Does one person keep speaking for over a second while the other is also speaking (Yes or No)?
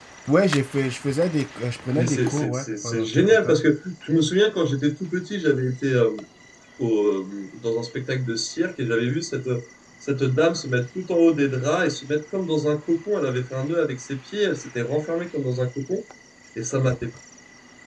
Yes